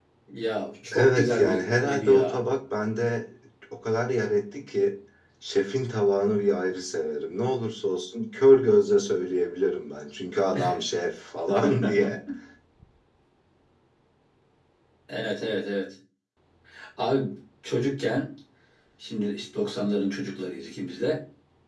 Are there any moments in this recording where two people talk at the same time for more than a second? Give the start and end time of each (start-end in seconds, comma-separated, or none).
0.9-2.4